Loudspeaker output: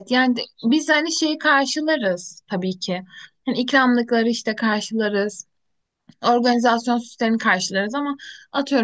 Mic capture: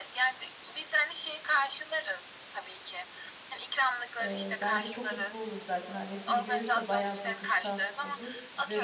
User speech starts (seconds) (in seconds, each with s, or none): 4.2 s